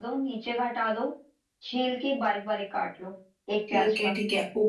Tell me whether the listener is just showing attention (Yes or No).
No